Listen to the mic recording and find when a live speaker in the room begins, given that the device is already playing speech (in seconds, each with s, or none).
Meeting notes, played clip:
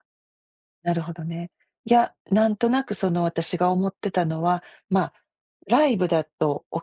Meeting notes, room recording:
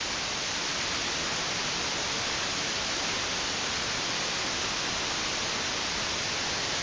none